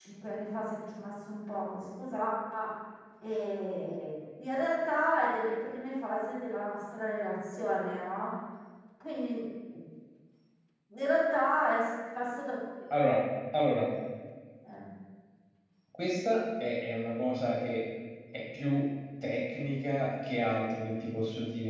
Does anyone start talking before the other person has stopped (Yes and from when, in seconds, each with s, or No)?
No